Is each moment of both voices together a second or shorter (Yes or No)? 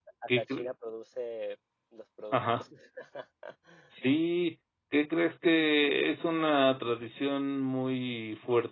Yes